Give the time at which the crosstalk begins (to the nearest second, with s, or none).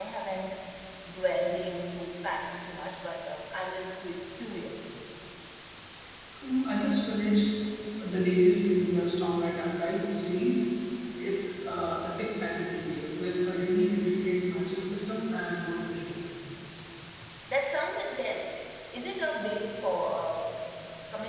none